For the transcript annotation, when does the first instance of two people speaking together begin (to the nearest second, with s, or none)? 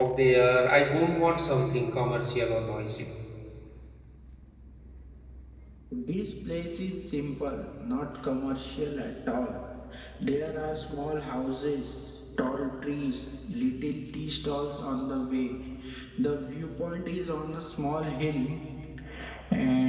none